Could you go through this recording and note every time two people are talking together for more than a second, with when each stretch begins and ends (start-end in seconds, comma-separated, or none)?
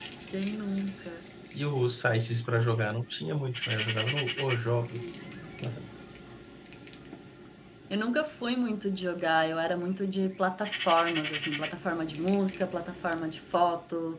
none